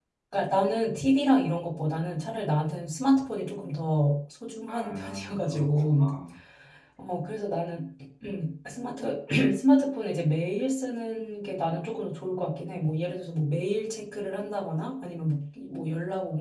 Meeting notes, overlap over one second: present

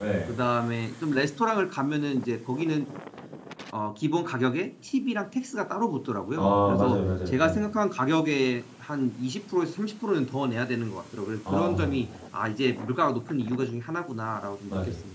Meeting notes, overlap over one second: present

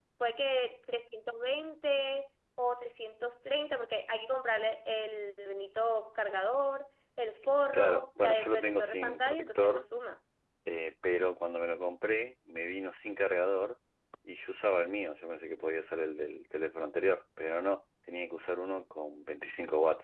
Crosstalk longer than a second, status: present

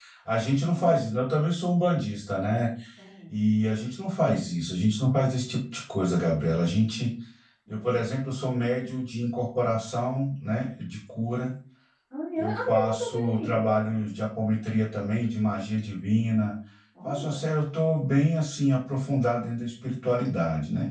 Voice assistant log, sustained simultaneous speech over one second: present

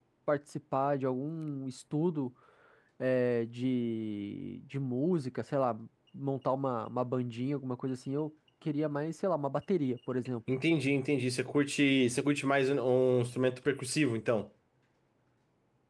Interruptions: none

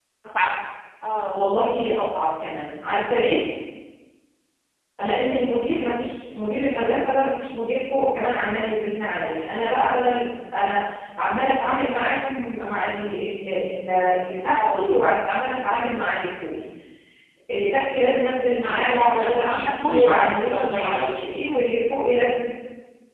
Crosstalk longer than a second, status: present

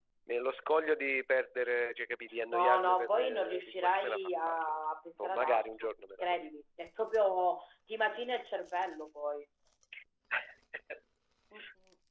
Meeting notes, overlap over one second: present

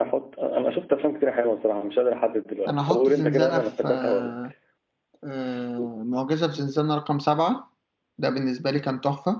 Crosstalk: present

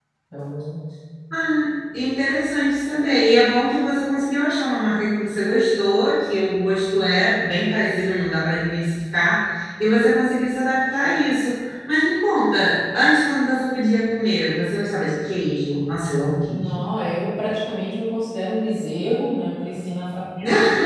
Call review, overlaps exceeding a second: none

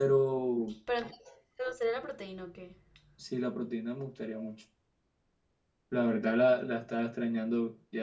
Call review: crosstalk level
none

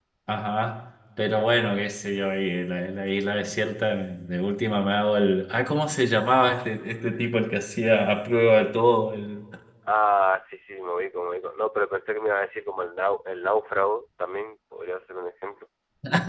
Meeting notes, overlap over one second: none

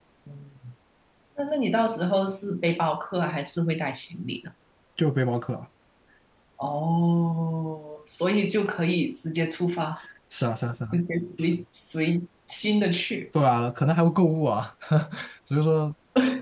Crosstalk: none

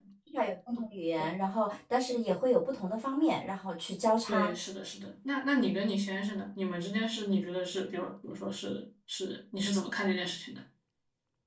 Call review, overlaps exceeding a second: none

